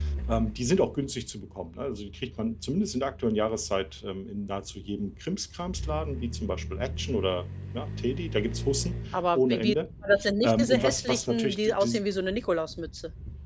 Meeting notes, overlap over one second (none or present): present